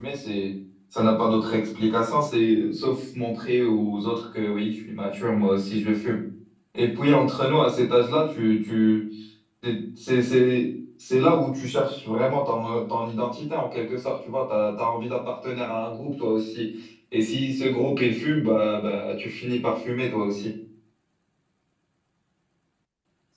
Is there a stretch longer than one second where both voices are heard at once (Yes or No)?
No